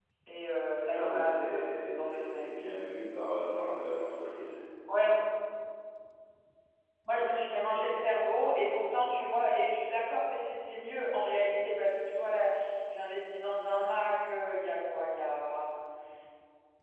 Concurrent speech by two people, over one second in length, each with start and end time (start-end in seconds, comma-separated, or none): 0.9-2.5